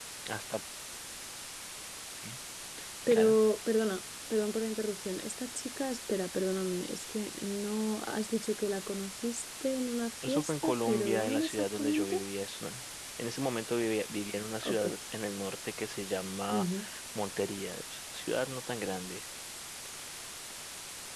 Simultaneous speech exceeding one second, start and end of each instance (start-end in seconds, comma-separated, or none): 10.3-12.2